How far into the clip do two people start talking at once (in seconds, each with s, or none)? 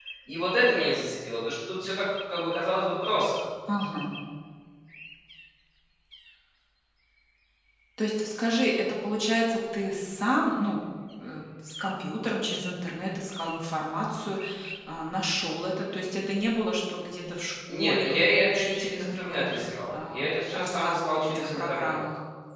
17.7 s